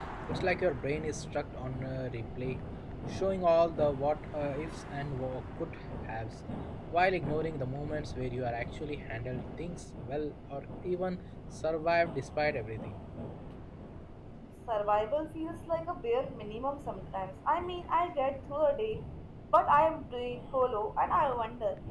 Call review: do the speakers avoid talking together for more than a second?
Yes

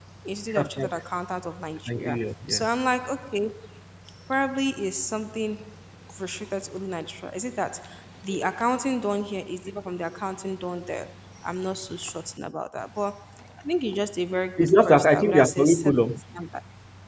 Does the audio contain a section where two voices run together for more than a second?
Yes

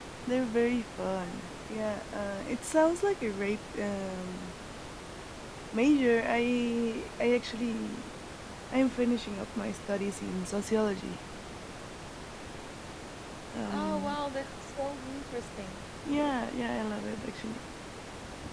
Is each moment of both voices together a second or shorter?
Yes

